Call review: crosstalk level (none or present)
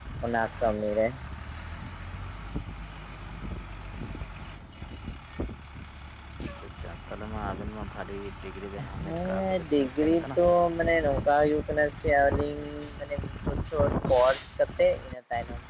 present